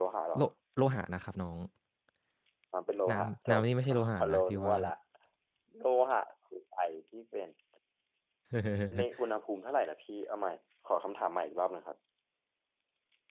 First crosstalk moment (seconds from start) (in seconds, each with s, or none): 3.1 s